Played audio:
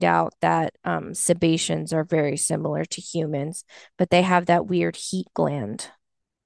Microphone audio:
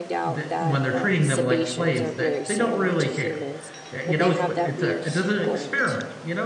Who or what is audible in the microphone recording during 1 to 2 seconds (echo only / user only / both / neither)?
both